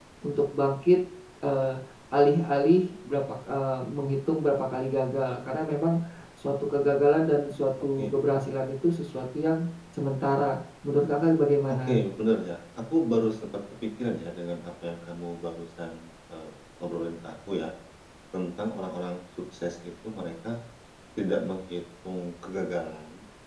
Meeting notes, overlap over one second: none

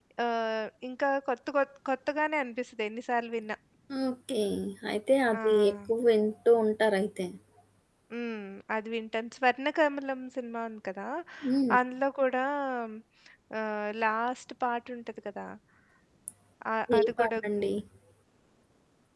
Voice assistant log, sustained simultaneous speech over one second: none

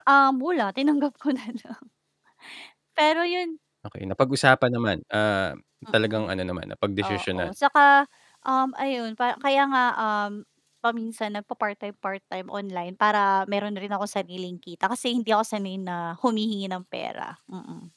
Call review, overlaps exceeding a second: none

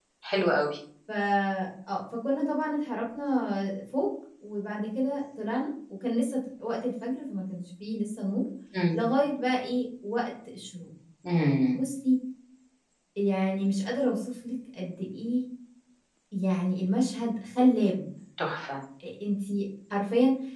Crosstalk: none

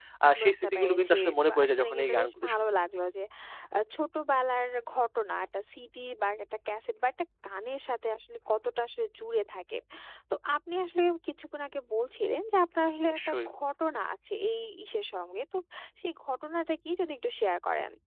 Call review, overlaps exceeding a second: present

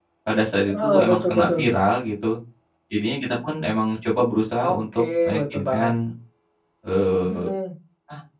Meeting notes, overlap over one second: present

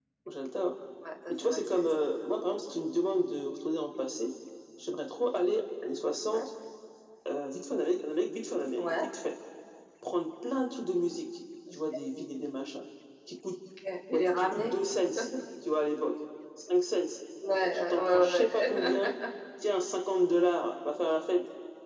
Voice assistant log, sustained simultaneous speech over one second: present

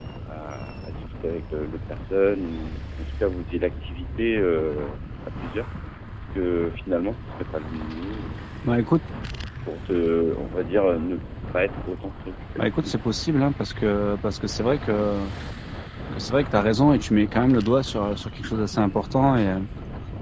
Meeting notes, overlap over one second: none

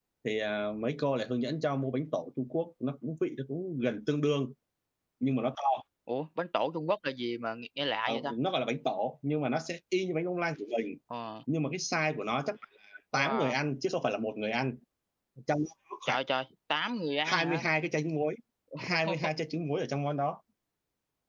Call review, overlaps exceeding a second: none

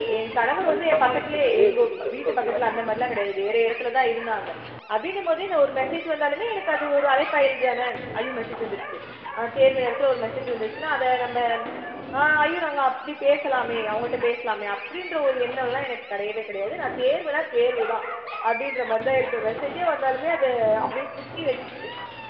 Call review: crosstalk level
present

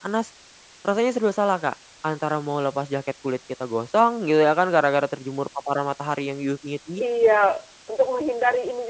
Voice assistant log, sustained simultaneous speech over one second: none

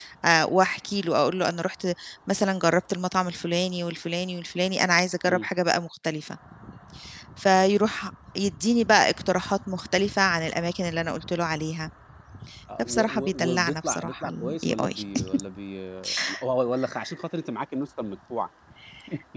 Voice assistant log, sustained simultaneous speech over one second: present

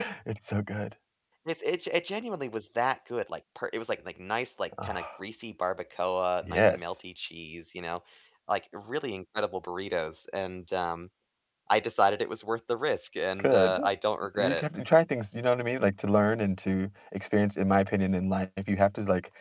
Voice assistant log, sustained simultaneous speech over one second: none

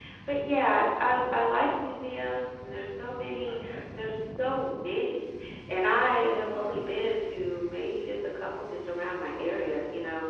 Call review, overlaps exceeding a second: present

